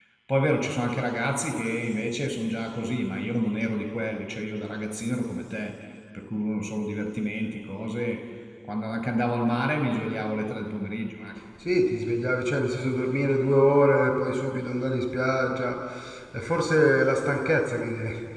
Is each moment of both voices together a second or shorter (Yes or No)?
Yes